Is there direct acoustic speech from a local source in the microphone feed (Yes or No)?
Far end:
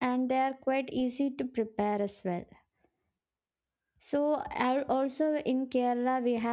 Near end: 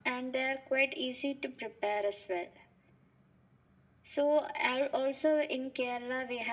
No